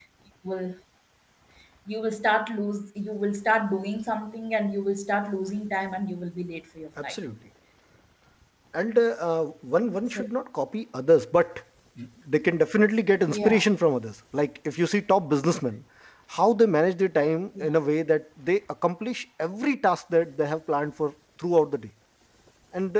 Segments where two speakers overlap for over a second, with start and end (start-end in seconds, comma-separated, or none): none